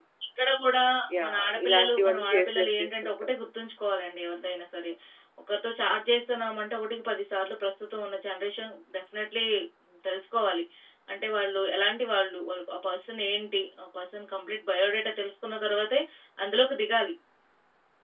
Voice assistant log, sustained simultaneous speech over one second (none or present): present